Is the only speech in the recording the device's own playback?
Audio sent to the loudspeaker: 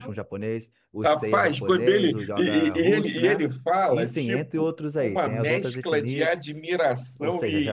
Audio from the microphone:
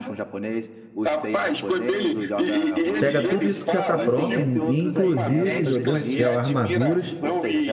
No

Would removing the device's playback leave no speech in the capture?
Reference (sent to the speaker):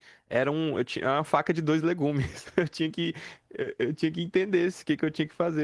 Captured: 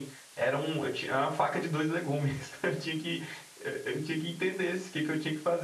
Yes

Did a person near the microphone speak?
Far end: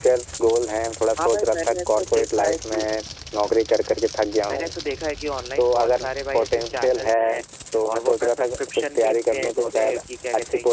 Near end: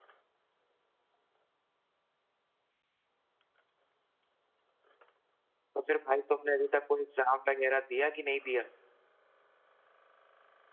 Yes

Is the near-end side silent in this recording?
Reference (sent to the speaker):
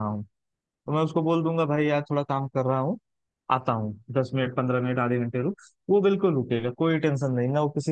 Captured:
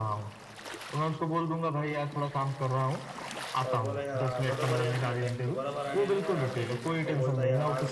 No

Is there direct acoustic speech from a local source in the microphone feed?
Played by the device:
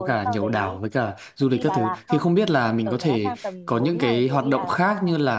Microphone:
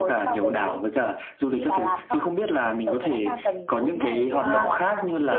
Yes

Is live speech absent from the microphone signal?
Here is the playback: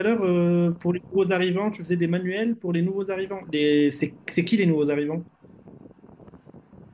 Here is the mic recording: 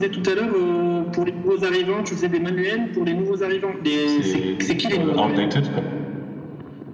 No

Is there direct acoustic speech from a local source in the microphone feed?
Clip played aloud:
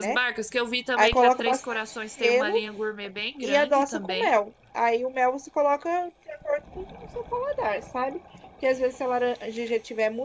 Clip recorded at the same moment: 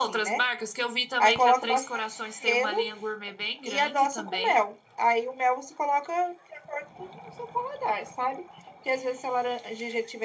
No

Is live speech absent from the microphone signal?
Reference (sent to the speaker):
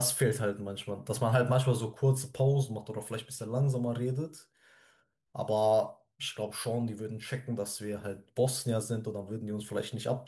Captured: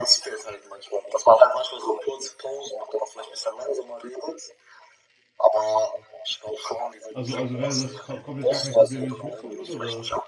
No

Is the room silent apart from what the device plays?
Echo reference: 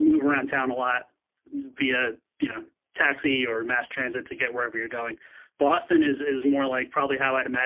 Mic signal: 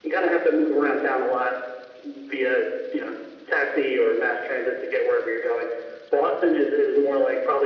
Yes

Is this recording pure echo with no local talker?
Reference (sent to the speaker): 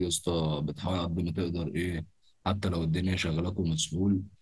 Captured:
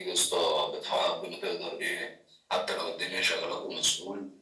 Yes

